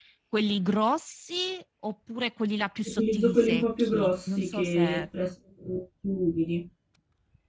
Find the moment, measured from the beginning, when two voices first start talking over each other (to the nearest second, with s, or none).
3 s